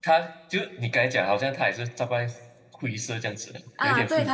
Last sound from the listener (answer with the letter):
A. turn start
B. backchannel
A